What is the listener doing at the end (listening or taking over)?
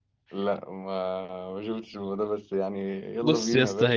taking over